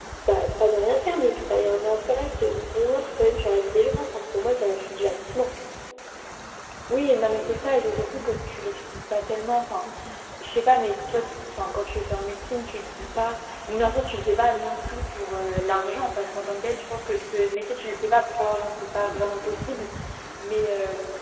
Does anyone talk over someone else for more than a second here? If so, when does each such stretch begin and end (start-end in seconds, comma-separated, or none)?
none